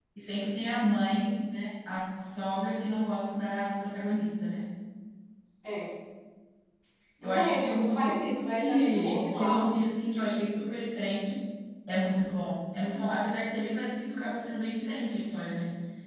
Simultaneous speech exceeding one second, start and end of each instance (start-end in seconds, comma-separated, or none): 7.2-9.6